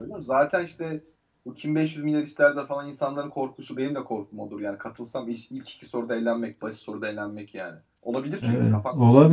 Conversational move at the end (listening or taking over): taking over